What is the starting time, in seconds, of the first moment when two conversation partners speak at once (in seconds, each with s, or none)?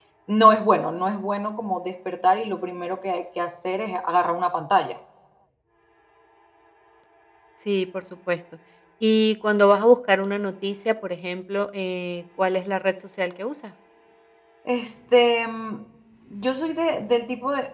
none